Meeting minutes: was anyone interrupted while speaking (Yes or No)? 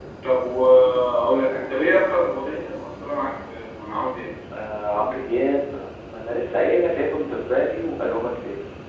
No